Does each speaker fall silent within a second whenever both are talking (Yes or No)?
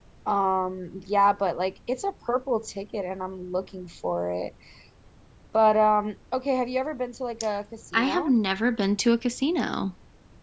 Yes